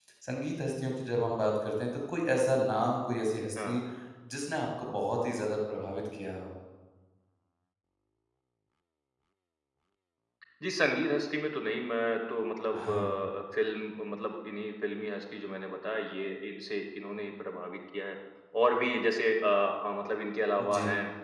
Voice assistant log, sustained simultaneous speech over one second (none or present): none